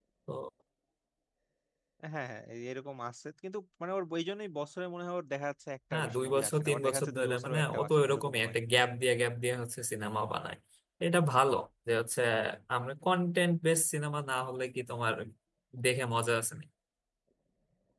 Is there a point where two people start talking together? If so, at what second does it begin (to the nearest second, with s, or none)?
6 s